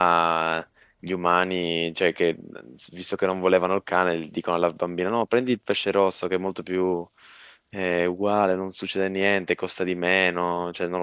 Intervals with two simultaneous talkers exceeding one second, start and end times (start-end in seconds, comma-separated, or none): none